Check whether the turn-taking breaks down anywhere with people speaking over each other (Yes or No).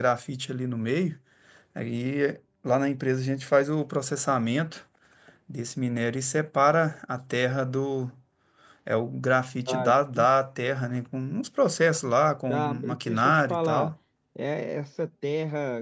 Yes